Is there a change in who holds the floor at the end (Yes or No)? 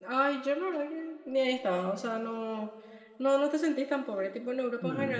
No